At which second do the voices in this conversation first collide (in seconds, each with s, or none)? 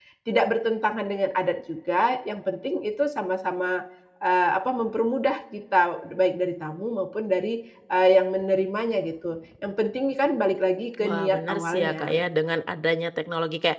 10.9 s